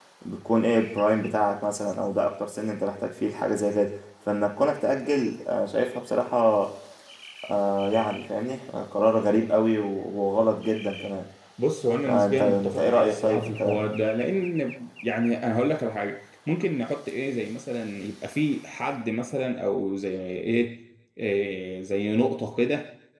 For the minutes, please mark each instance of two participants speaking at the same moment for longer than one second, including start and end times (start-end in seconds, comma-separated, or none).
12.1-13.8